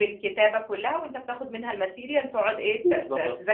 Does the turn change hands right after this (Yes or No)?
Yes